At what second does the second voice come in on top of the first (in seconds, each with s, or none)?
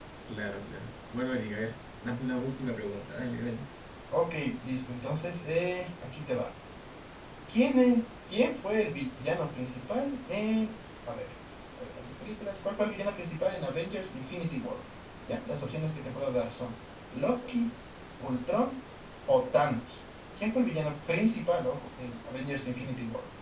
none